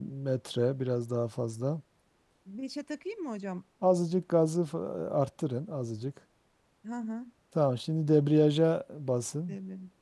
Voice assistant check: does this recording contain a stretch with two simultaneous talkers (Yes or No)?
No